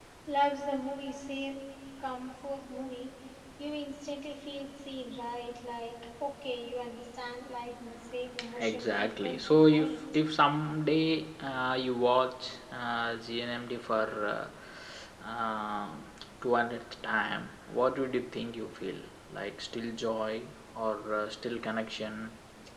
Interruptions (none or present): present